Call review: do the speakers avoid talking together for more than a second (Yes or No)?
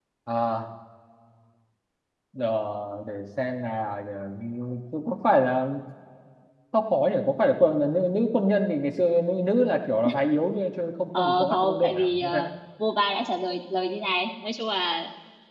No